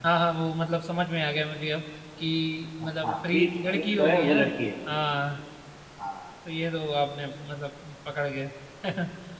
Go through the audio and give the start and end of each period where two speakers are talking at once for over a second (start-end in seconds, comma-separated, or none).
2.8-4.4